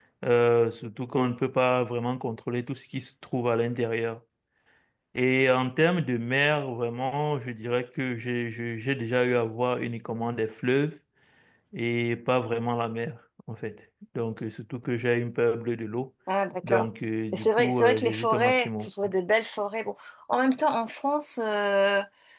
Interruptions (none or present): present